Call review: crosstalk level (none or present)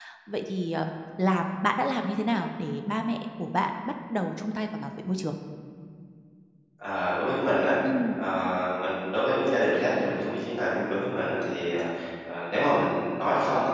none